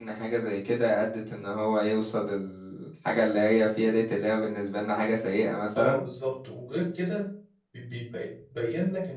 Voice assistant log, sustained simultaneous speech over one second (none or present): none